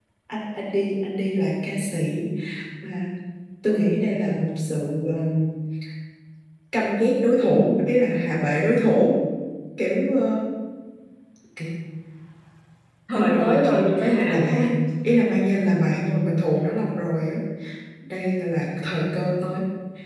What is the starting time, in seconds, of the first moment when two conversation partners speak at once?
13.2 s

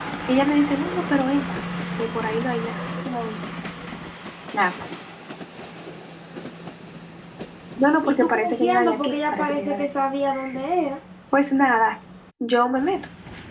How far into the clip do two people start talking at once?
8.0 s

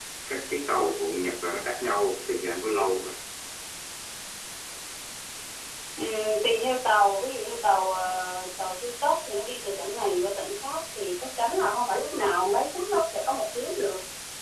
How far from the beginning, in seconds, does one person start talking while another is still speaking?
none

